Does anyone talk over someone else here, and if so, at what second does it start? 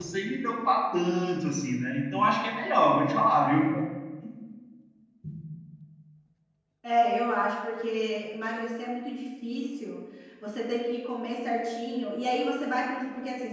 none

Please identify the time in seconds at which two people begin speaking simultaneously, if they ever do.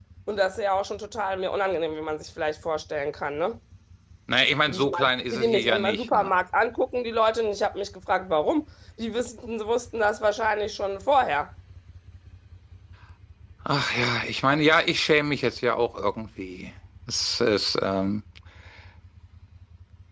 4.7 s

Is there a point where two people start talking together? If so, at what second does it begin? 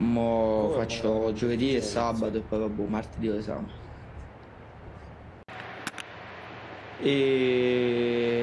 0.6 s

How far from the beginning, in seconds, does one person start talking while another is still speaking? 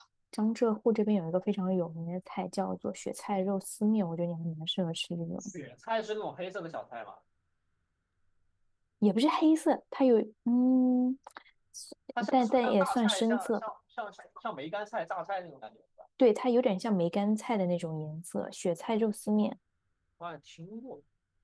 12.3 s

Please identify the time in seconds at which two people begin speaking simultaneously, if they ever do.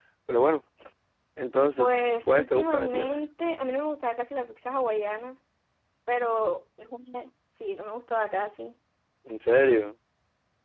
1.8 s

